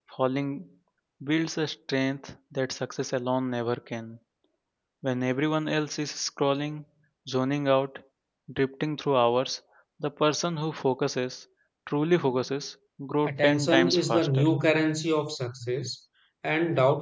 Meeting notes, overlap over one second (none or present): present